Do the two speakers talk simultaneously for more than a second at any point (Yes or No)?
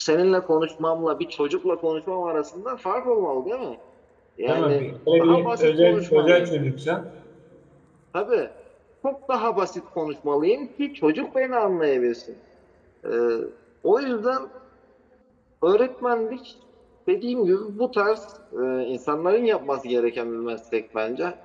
Yes